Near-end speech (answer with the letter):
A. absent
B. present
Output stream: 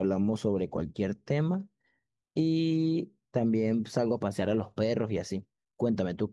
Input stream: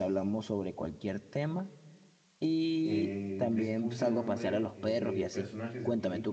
B